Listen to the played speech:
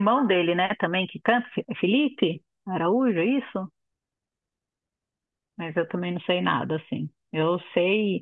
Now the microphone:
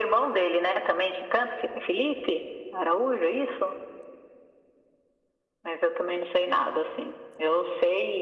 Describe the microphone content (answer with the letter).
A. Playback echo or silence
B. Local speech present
A